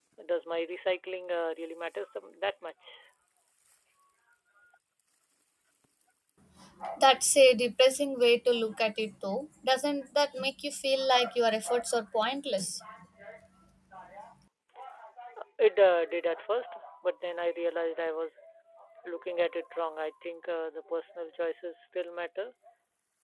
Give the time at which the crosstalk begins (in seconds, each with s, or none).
none